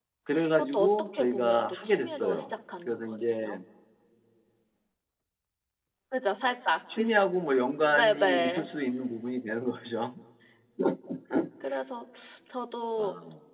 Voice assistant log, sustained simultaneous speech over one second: present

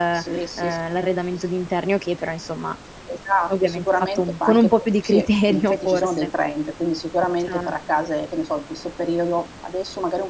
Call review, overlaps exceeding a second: present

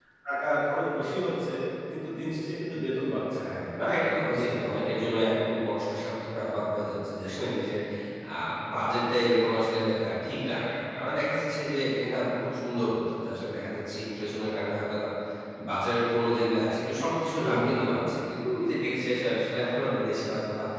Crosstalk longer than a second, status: none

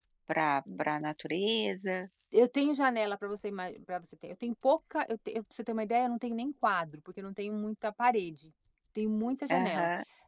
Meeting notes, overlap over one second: none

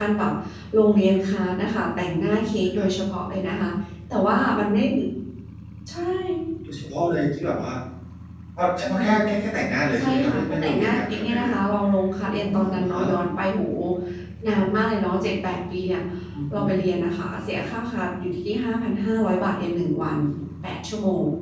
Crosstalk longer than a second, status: present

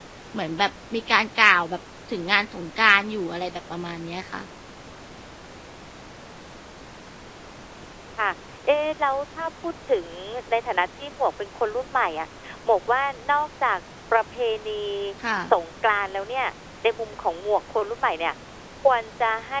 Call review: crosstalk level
none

